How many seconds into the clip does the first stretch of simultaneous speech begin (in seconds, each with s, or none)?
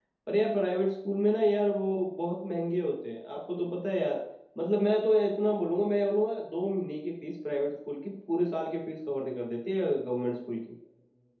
none